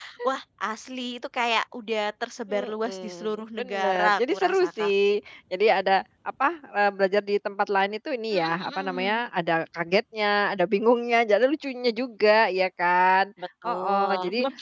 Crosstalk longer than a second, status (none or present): present